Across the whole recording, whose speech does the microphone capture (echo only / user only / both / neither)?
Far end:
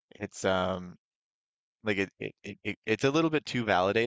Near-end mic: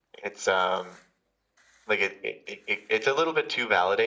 echo only